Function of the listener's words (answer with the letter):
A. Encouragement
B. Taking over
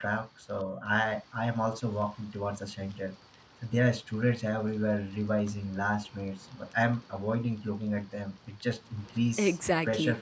B